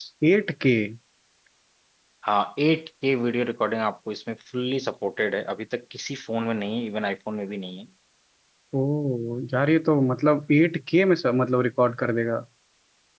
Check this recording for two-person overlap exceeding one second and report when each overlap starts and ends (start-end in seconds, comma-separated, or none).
none